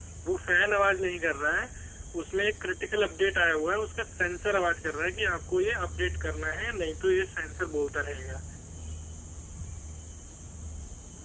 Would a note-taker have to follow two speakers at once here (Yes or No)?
No